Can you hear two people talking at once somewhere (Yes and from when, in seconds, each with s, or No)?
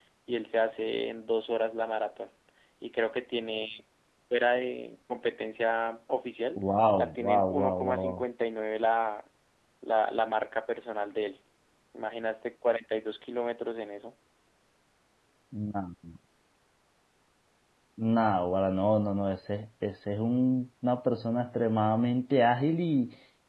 Yes, from 7.0 s